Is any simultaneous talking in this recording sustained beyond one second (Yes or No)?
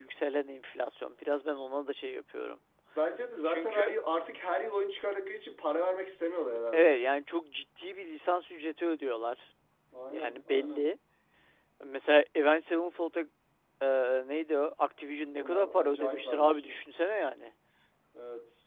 Yes